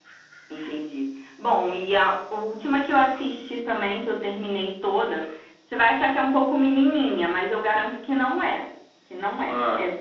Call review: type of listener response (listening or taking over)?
listening